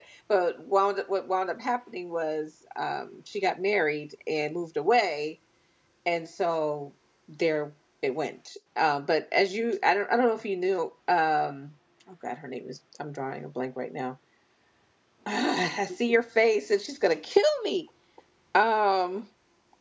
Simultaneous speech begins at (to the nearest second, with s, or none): none